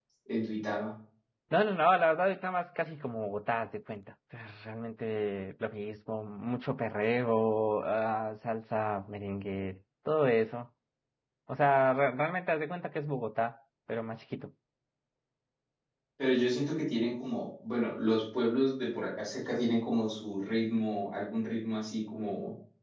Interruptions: none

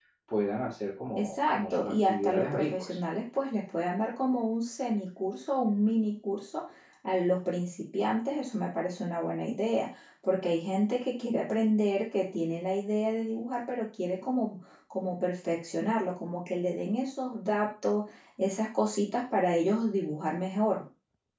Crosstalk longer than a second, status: present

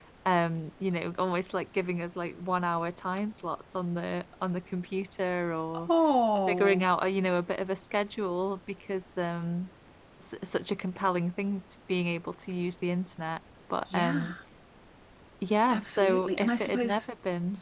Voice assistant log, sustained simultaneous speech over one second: present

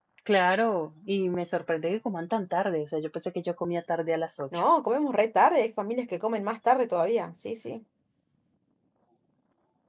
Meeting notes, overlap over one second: none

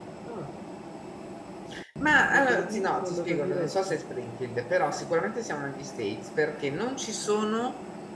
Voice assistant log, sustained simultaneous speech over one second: present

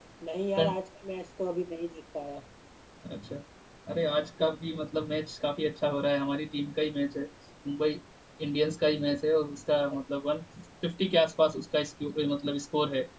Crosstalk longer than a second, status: none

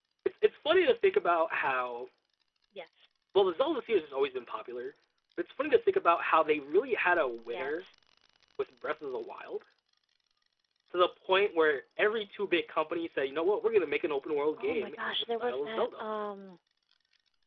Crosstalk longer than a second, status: present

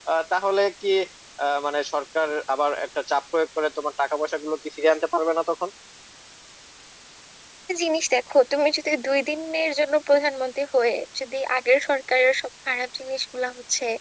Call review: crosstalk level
none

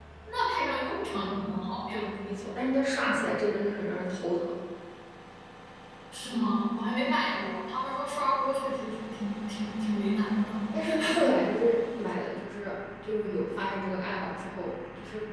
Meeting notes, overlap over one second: none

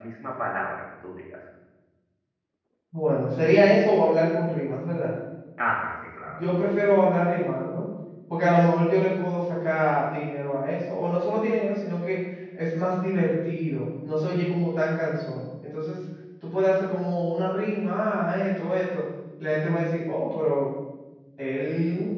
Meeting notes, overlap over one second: none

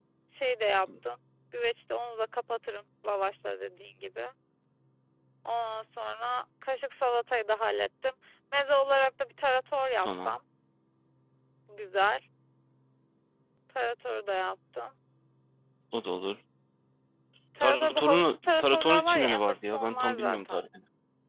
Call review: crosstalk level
present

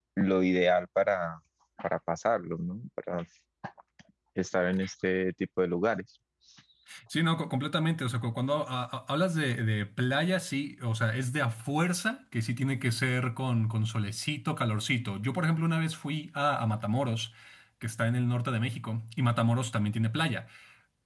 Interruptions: none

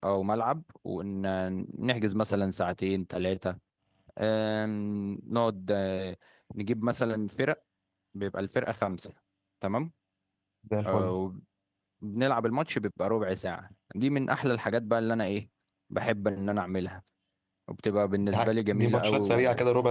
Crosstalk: present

